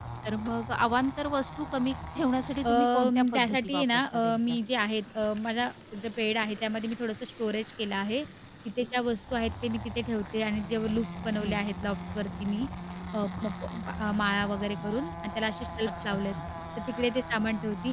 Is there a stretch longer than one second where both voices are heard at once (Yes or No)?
Yes